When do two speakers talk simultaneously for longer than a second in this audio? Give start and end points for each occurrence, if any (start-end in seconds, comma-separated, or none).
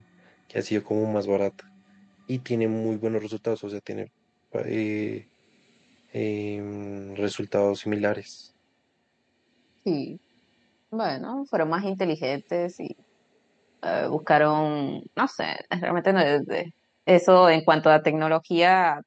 none